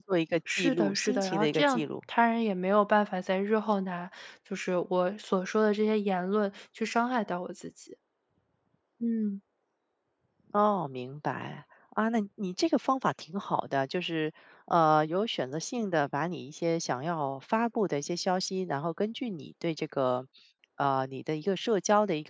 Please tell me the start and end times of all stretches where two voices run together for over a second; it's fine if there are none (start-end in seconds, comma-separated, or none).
0.6-1.8